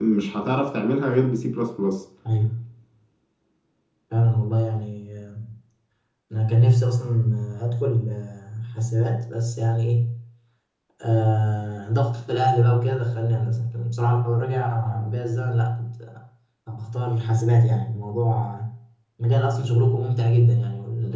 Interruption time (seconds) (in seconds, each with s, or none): none